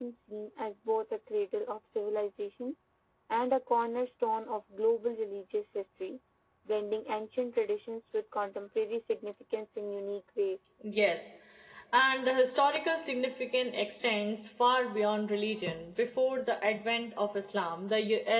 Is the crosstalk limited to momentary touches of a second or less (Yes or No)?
Yes